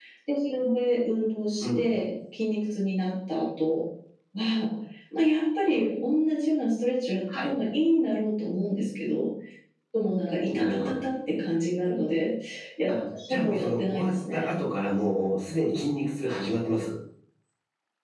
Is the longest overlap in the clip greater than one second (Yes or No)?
Yes